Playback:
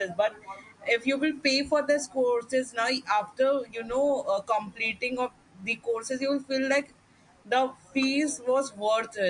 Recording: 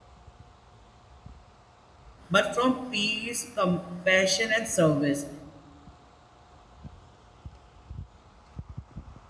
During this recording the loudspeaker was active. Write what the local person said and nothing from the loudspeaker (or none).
but from peace, compassion, and service.